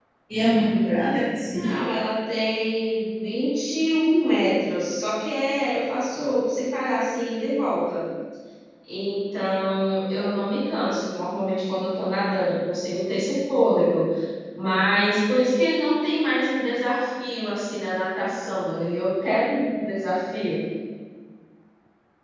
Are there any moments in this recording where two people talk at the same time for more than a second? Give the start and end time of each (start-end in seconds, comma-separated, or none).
none